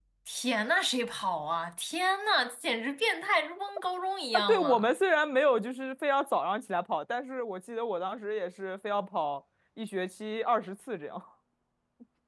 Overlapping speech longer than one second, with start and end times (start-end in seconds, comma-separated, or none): none